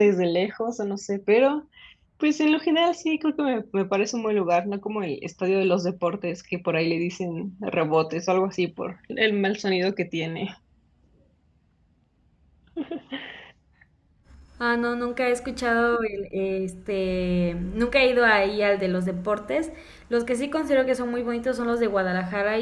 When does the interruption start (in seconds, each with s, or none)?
none